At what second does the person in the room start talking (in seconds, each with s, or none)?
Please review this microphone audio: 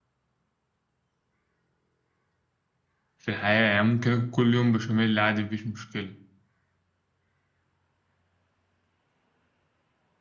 3.2 s